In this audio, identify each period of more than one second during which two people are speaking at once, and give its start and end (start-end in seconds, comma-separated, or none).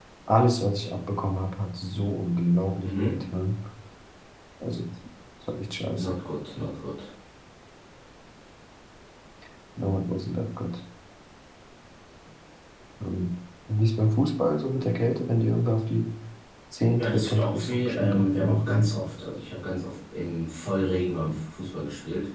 17.0-18.9